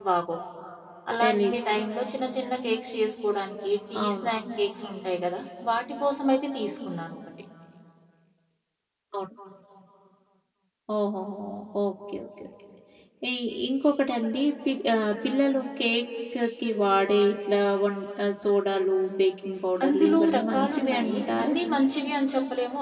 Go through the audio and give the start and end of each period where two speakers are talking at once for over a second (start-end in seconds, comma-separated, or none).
19.8-21.5